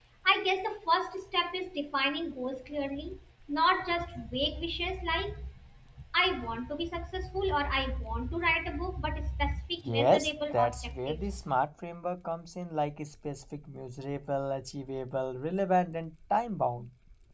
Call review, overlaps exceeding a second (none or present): present